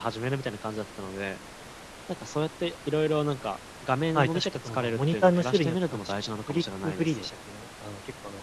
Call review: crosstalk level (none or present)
present